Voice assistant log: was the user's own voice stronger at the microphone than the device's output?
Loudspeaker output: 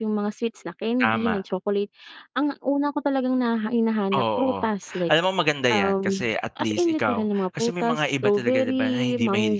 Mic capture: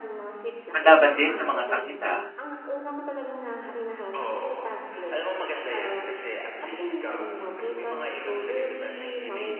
Yes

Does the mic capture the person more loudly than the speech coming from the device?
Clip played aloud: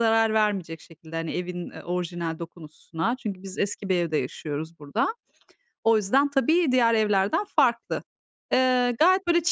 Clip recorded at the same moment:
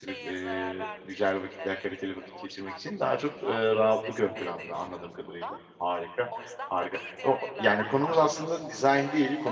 Yes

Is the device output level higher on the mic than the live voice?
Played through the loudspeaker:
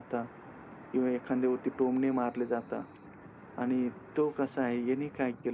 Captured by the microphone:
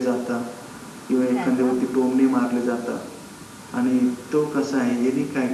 Yes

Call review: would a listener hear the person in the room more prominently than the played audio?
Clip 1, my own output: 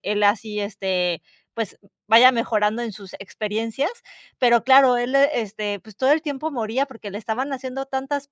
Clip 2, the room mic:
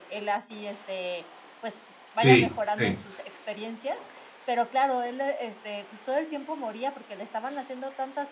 Yes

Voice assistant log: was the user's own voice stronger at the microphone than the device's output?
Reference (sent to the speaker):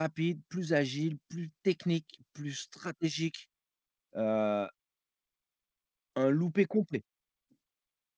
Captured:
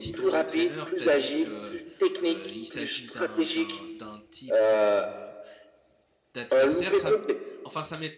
No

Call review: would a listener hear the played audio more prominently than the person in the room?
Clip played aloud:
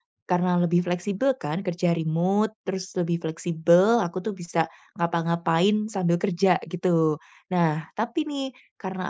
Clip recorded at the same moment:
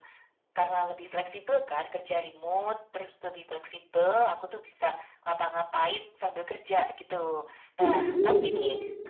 No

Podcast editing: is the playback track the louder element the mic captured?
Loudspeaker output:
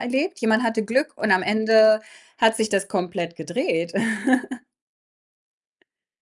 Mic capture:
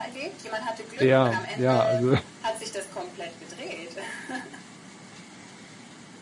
No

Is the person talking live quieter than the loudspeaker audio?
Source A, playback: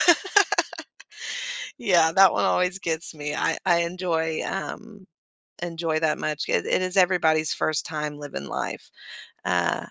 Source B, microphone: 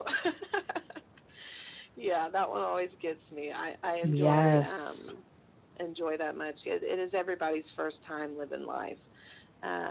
No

